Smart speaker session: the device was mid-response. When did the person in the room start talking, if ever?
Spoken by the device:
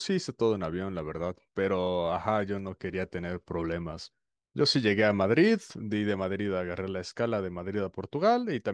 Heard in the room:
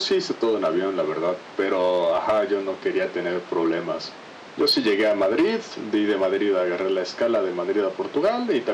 none

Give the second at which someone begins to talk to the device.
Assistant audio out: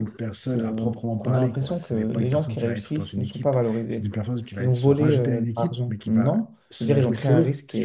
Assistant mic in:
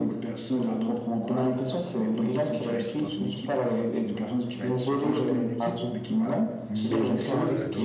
6.7 s

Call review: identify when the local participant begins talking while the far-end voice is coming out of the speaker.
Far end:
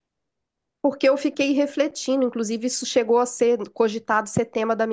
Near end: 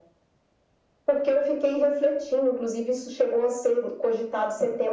none

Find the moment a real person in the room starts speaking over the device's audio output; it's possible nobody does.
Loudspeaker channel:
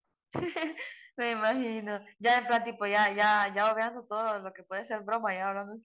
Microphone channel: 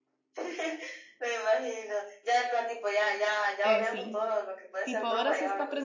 3.6 s

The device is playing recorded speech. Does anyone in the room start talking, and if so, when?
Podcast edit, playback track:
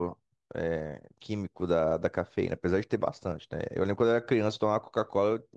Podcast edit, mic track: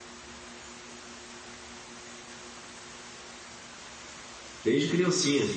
4.6 s

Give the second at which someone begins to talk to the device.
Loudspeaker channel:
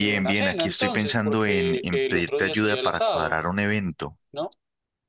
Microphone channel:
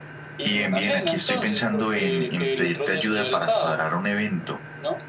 none

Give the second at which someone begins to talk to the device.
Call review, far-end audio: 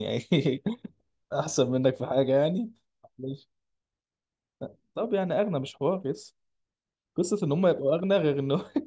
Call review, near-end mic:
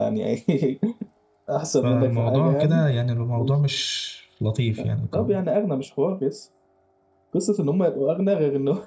1.7 s

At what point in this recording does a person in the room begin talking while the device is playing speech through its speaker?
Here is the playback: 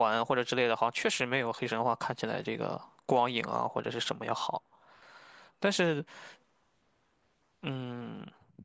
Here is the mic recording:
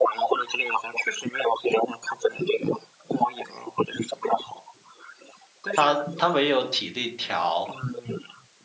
5.7 s

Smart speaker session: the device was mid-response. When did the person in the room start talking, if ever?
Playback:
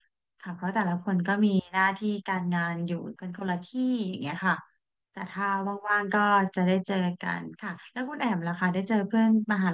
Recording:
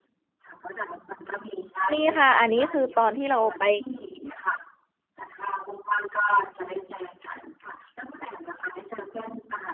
1.9 s

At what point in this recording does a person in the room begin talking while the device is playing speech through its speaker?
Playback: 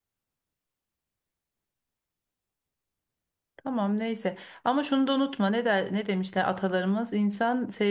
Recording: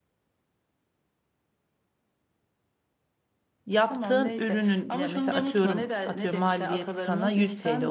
3.6 s

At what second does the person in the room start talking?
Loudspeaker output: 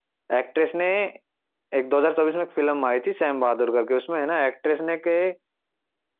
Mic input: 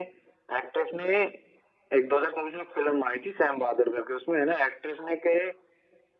none

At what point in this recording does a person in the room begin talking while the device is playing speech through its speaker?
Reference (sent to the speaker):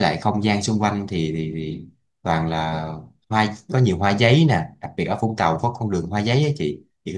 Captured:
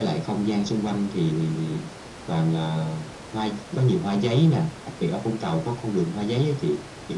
none

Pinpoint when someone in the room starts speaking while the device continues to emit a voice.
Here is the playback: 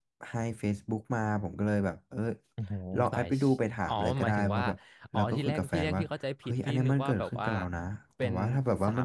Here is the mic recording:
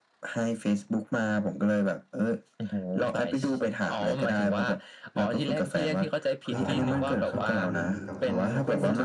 6.5 s

